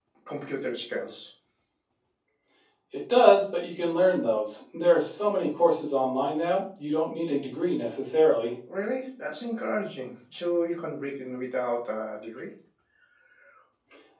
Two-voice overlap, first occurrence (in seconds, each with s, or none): none